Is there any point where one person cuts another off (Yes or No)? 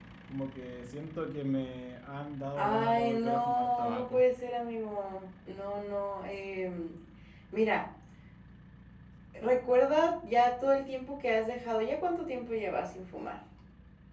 Yes